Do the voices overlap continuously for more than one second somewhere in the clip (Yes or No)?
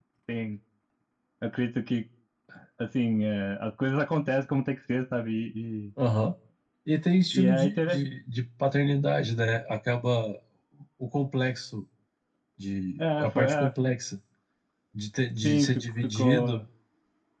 Yes